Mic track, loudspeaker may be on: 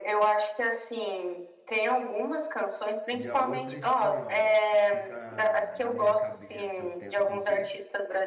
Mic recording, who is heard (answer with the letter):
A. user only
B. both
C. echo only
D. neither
B